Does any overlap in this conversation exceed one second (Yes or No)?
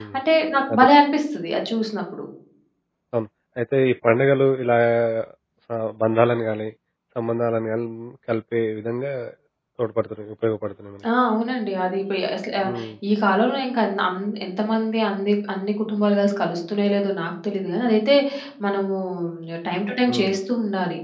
No